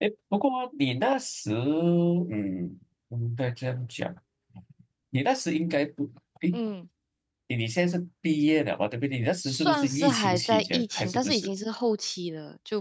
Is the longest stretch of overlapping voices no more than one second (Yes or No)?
No